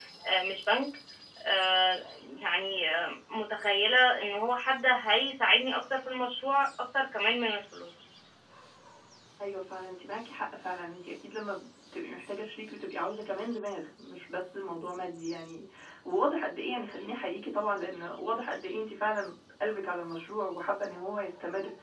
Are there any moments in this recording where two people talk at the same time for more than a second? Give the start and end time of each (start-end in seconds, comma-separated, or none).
none